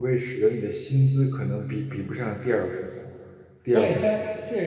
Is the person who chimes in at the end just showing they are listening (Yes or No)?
No